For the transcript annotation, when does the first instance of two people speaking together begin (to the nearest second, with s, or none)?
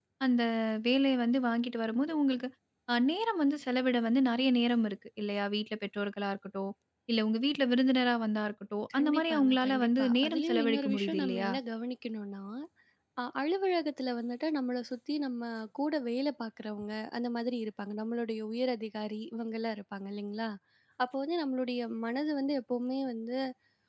9 s